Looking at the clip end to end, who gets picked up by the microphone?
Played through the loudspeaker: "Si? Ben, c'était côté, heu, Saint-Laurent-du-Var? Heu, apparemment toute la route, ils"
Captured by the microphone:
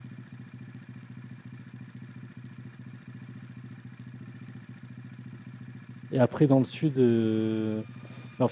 user only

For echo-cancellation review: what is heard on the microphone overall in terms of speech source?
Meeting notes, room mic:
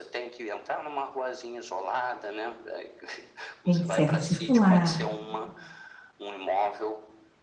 both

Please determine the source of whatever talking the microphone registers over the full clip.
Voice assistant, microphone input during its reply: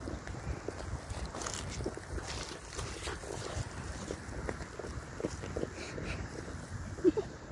neither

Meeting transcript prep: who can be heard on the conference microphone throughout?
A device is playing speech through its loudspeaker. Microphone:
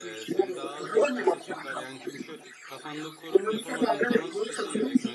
both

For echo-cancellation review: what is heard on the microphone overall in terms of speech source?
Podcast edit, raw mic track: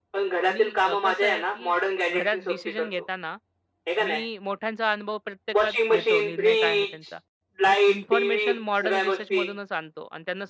both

